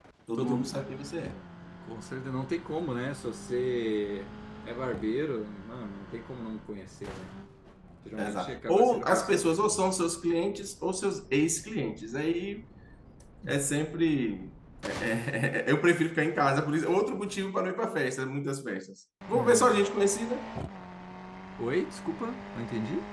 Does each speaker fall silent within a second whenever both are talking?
No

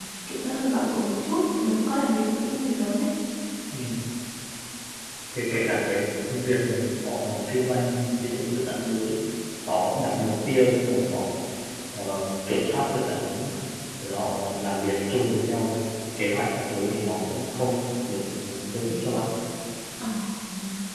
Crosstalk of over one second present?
No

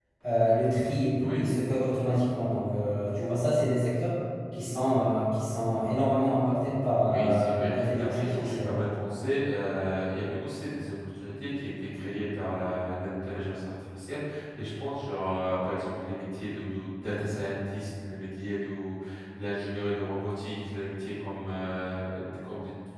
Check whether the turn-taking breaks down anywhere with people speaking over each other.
Yes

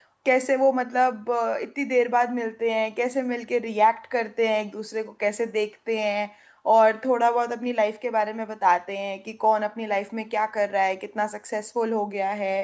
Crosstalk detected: No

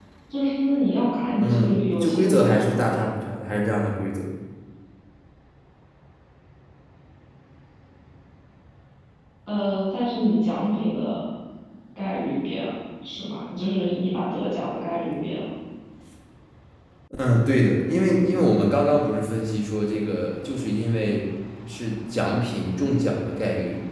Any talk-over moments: Yes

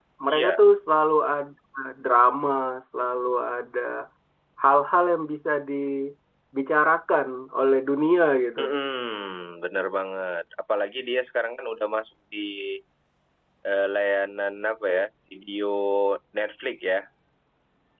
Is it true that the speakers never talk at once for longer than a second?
Yes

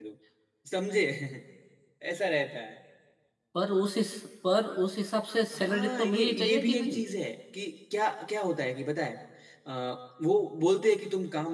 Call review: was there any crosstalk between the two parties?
Yes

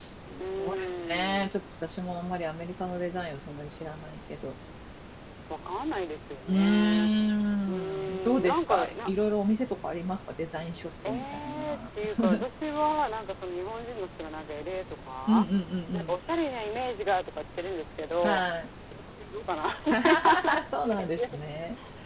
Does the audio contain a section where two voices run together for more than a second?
Yes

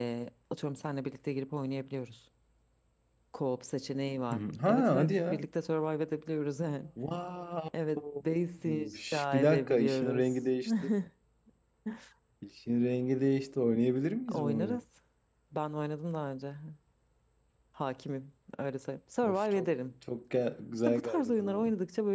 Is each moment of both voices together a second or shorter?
No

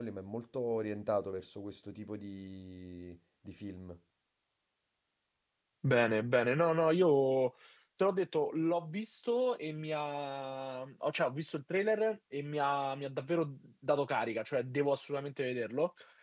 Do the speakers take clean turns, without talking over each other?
Yes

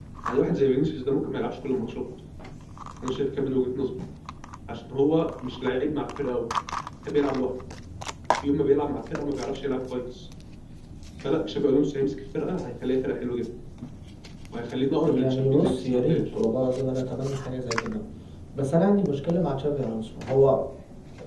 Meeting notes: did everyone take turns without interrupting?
No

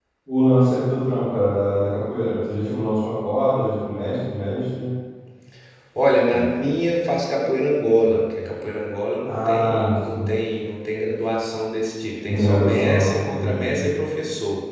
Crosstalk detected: Yes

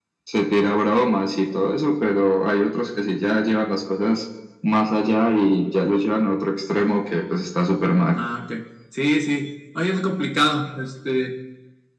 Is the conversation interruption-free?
Yes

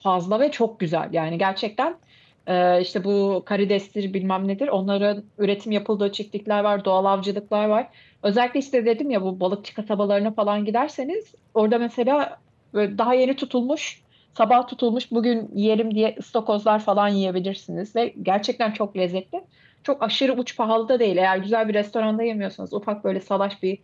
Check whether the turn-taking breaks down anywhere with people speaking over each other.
No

